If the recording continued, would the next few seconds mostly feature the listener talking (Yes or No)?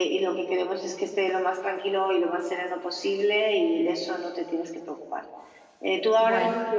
No